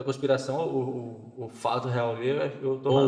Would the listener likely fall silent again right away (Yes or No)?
No